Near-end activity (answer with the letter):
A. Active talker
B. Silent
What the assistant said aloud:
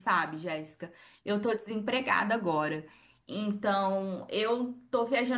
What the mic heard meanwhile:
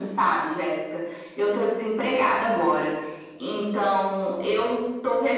B